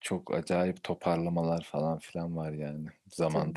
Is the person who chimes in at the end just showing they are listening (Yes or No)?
No